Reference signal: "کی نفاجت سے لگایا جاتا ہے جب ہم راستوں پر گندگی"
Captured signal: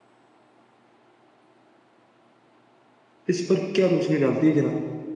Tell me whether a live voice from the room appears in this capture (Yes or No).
Yes